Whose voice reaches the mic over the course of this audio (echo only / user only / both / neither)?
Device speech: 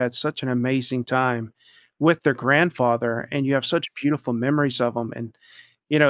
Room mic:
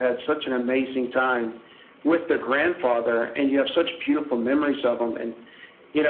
echo only